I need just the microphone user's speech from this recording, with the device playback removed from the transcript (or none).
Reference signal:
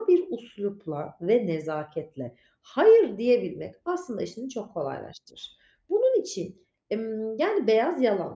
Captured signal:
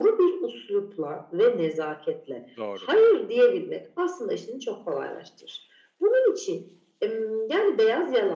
Doğru.